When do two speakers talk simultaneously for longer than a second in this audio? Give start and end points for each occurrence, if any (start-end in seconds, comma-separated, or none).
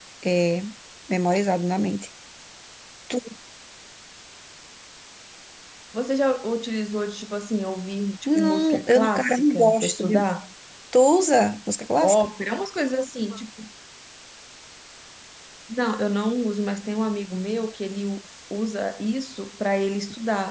8.3-10.3